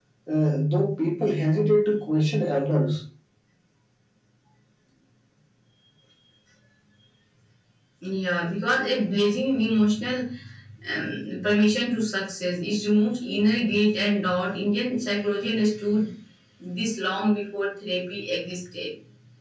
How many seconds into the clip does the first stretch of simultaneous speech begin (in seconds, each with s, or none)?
none